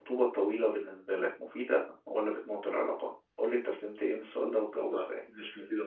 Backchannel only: No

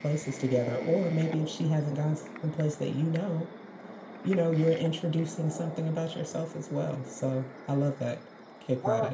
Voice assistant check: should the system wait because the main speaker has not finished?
No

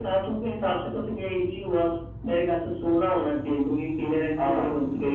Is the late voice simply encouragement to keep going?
No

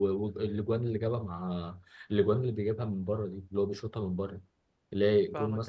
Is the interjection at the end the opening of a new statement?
Yes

